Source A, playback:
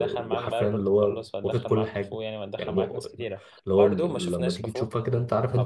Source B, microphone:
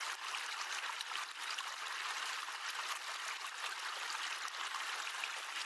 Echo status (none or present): none